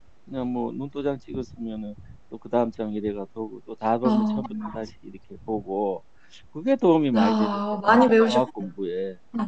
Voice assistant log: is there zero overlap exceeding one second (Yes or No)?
No